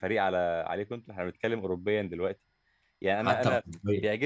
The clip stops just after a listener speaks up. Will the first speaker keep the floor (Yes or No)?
Yes